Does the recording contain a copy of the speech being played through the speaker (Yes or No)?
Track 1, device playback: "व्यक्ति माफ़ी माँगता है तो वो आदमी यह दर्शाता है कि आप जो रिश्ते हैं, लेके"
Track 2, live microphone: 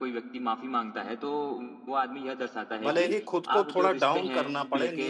Yes